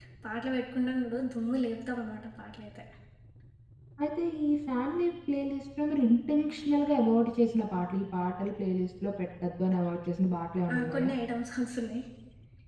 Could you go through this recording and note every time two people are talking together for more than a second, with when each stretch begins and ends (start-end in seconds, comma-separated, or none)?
none